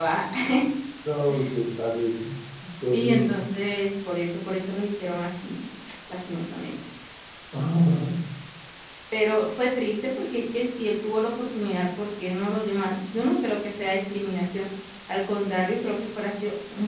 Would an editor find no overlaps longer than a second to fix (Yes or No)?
Yes